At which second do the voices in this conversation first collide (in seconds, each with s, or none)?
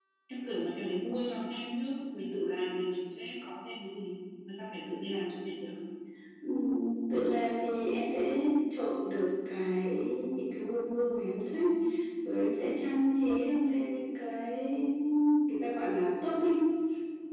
none